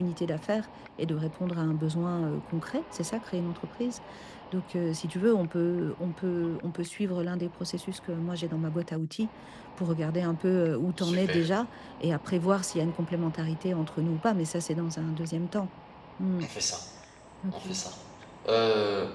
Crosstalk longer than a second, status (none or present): none